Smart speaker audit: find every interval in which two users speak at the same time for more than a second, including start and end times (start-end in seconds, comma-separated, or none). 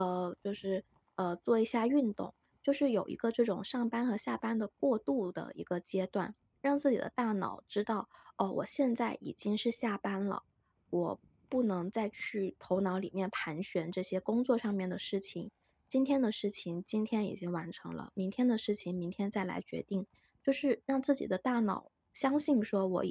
none